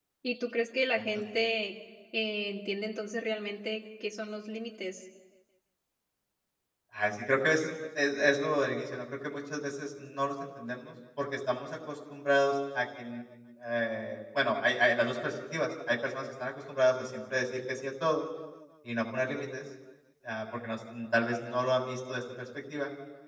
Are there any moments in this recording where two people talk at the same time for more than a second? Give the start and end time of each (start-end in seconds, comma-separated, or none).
none